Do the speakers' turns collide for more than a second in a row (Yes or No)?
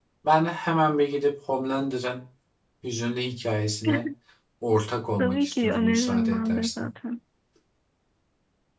Yes